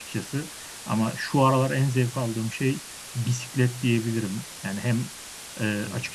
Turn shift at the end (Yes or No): No